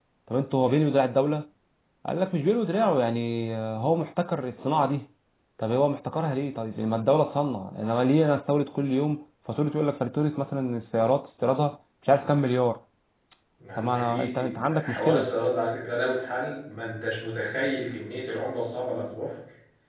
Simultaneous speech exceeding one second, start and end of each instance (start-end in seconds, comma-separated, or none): 13.8-15.3